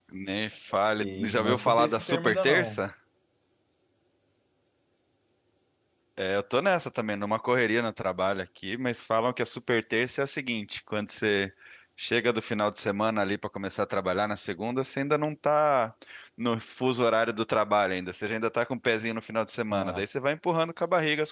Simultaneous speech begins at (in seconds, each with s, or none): 1.0 s